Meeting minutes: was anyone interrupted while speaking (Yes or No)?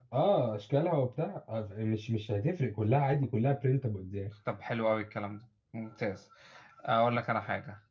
No